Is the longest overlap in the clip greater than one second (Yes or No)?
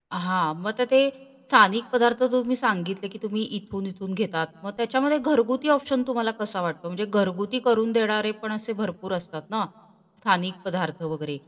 No